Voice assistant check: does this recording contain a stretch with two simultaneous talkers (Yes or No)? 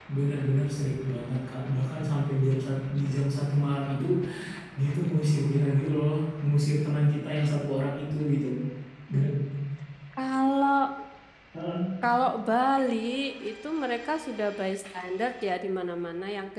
No